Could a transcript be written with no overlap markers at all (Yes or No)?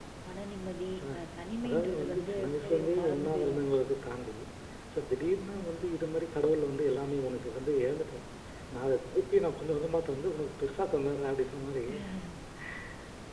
No